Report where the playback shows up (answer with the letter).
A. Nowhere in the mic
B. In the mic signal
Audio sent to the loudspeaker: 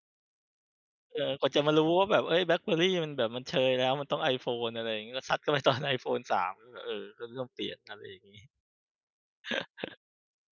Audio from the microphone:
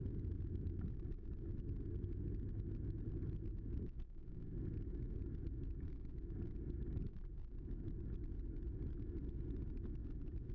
A